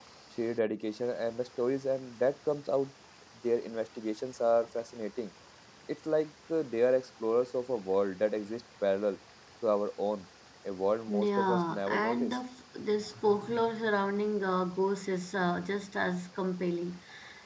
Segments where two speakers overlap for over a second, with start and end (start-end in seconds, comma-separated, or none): 11.1-12.4